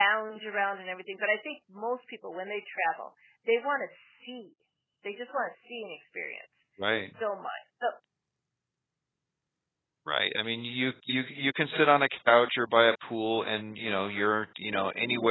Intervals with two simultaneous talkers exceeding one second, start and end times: none

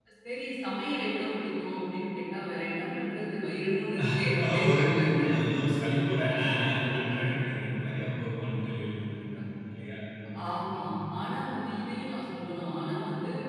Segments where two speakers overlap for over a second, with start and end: none

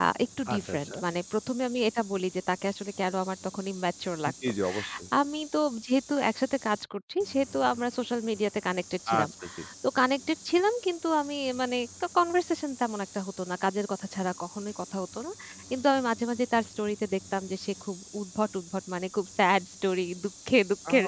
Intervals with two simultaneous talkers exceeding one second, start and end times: none

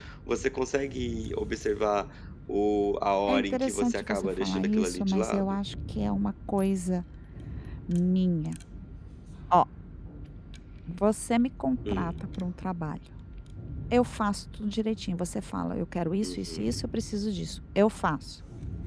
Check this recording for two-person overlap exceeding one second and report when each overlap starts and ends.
3.3-5.6

